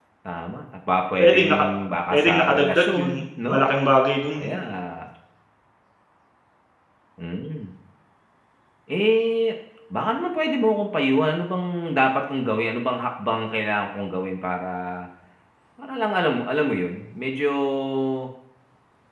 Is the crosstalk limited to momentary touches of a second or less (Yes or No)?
No